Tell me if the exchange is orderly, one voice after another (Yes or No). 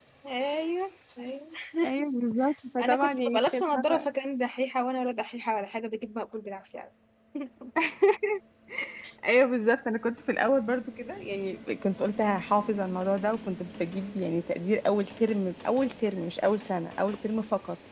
No